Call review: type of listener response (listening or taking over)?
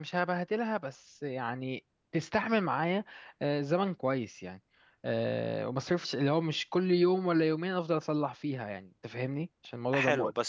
taking over